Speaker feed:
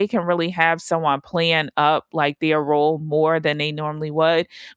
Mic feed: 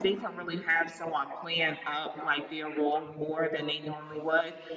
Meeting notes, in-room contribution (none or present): none